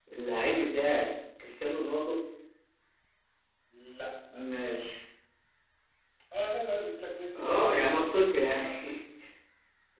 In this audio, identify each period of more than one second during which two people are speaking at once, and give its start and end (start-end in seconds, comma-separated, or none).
7.3-8.6